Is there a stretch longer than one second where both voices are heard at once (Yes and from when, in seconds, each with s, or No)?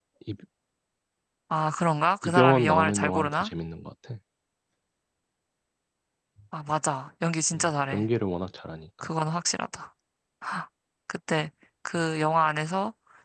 Yes, from 2.2 s